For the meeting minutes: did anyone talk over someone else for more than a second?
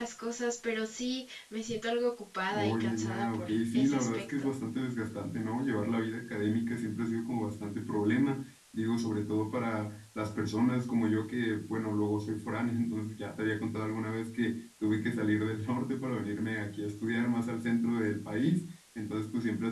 Yes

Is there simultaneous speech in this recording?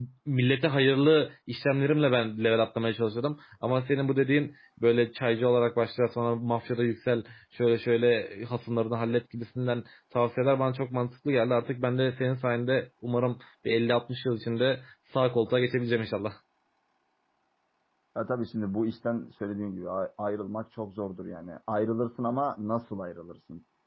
No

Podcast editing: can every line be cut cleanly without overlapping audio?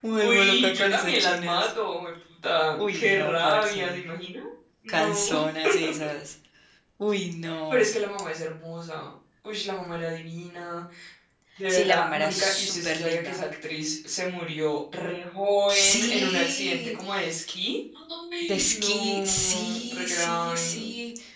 No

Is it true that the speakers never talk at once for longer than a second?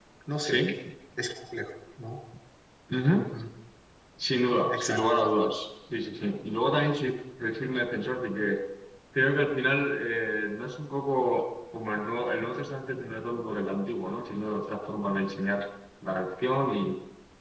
Yes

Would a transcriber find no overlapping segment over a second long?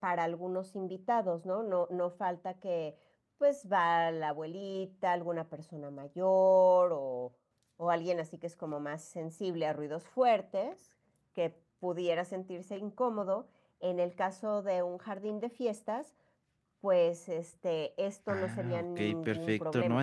No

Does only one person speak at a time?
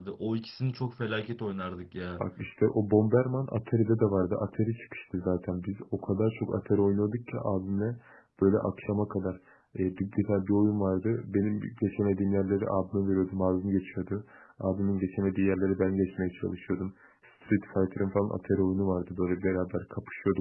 Yes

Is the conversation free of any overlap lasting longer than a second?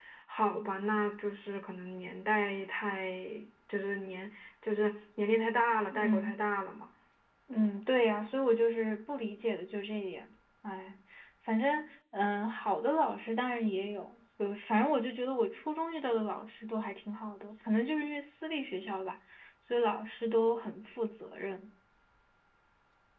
Yes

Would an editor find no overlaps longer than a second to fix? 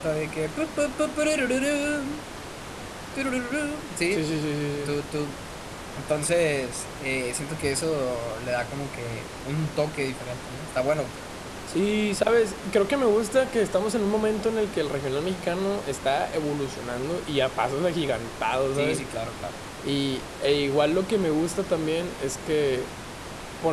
Yes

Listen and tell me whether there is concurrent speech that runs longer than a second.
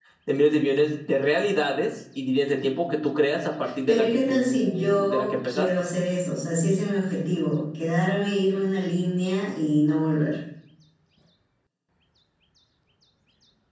Yes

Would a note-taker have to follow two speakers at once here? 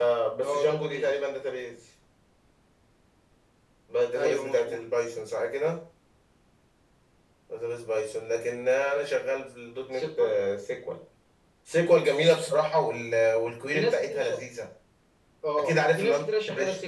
Yes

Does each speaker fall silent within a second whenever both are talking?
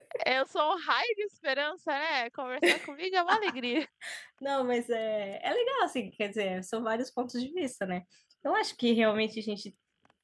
Yes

